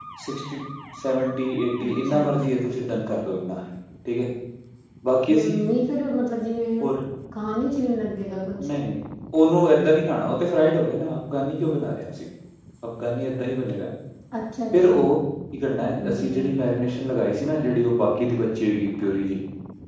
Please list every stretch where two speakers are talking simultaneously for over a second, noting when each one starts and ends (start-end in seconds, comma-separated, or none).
none